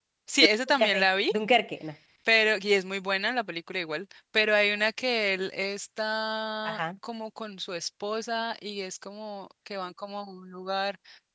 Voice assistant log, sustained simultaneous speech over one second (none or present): none